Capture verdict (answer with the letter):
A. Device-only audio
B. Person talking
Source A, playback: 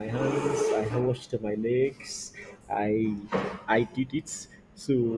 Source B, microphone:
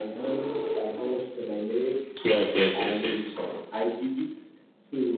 B